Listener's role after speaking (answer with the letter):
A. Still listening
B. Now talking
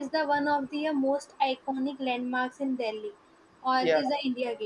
A